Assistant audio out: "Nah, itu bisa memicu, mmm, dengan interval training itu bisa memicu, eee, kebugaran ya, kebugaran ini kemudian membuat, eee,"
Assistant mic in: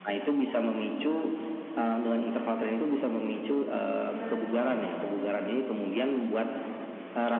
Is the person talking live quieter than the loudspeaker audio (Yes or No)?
Yes